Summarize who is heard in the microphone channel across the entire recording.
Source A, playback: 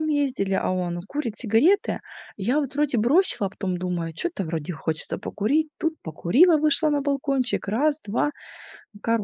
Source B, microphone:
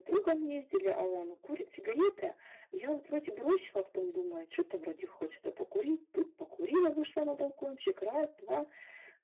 echo only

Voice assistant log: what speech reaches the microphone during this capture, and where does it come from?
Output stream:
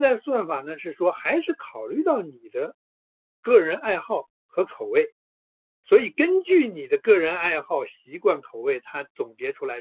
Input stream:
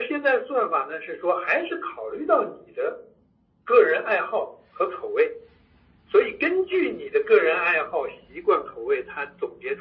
echo only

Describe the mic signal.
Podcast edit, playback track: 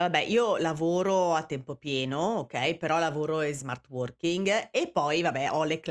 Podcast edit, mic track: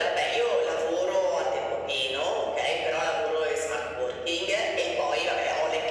echo only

